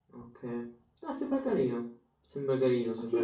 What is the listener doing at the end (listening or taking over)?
taking over